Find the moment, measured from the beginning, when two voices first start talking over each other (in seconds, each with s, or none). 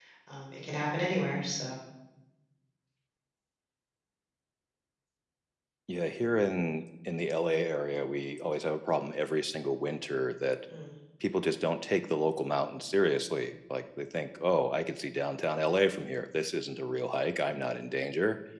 none